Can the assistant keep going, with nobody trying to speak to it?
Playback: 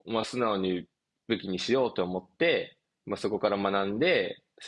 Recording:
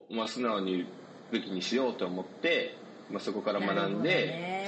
No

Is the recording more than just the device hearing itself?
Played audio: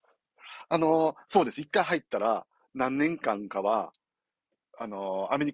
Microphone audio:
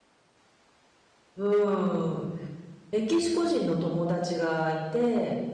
Yes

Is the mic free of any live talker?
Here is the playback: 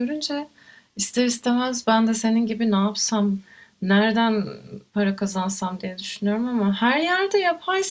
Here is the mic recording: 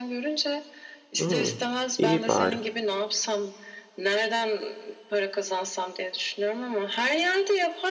No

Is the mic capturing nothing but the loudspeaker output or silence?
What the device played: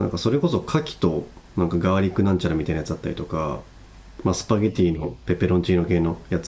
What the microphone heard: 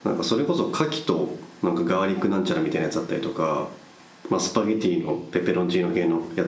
Yes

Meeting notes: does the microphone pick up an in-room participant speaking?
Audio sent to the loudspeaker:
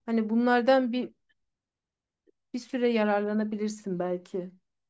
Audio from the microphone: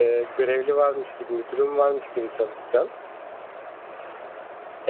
Yes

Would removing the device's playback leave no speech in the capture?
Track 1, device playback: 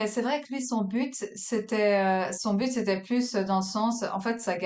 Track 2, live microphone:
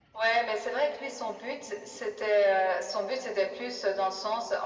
Yes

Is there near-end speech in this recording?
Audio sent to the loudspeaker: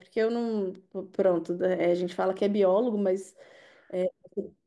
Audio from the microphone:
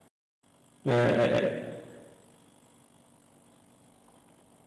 Yes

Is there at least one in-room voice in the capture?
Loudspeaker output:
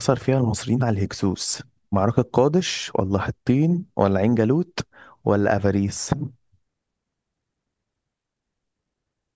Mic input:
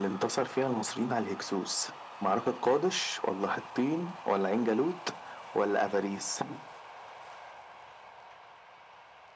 No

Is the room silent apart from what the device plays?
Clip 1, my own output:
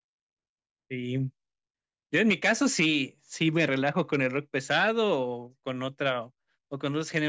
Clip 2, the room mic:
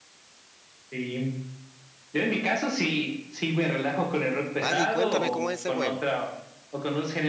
No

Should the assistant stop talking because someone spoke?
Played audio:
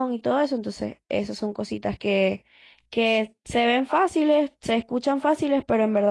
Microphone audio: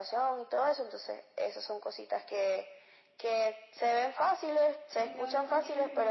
Yes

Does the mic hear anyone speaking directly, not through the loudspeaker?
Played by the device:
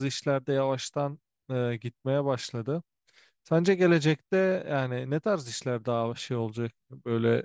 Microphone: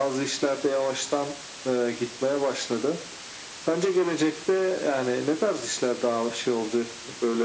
No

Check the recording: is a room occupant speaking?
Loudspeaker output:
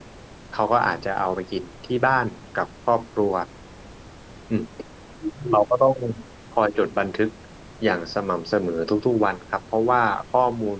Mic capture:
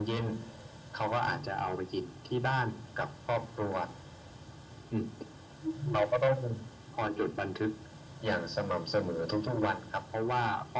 No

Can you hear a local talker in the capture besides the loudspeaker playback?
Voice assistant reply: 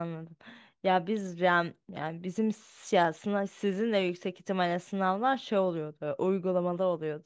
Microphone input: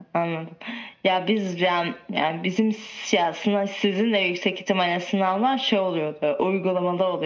No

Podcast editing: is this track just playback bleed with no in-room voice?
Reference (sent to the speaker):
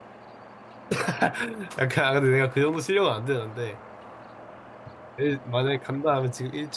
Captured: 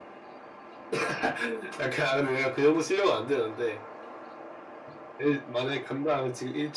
Yes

